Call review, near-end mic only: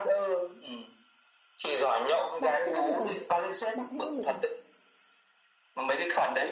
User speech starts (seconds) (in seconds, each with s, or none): 2.4 s